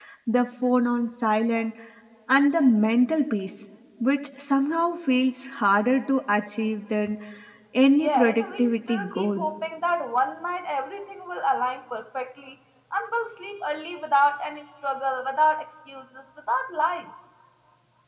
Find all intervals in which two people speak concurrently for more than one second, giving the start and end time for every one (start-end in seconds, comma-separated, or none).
8.0-9.4